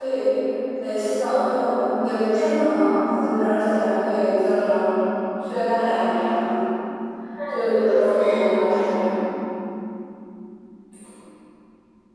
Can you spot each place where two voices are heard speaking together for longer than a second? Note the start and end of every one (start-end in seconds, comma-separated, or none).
7.5-8.9